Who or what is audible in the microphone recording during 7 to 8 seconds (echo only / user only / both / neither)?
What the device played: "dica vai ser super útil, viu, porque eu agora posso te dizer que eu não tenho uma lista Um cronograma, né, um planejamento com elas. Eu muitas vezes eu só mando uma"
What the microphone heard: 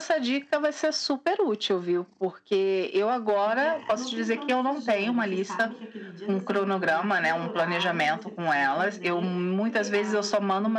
both